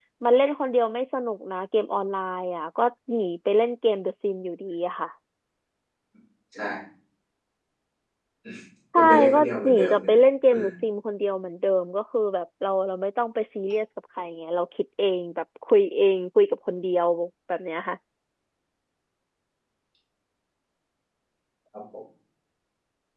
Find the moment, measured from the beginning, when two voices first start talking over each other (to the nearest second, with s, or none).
9 s